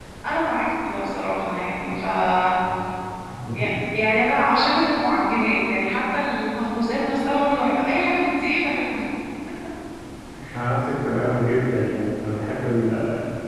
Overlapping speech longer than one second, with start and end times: none

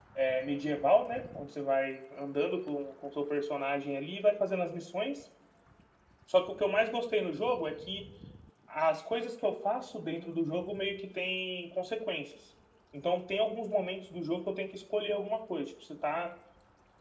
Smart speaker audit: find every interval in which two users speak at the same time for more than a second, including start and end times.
none

